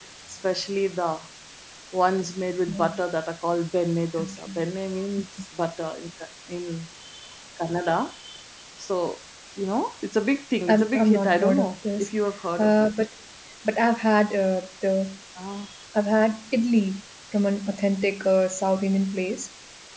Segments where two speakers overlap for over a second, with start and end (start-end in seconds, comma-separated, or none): 10.7-12.1